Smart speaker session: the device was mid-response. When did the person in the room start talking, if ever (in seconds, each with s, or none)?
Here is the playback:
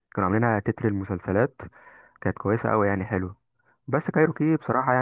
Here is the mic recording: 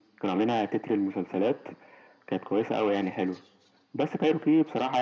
none